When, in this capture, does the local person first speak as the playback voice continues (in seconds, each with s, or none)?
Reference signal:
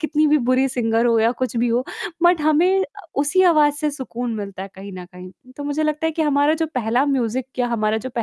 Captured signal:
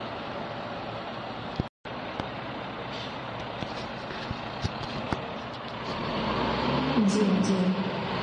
6.9 s